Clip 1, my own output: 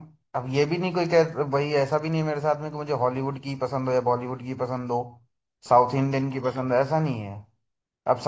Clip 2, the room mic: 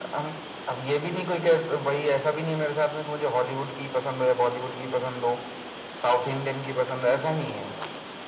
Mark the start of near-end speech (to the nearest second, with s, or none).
none